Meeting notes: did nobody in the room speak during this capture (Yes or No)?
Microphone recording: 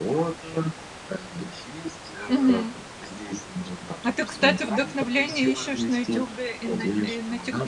No